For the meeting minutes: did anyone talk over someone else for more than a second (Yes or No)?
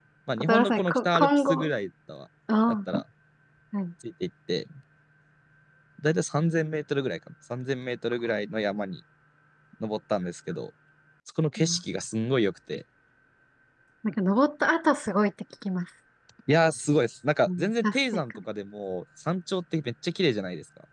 Yes